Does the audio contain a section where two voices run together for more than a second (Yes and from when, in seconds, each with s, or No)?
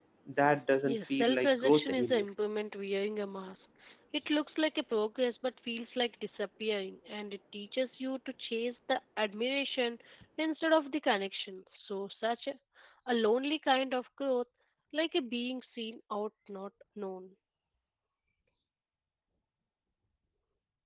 Yes, from 0.8 s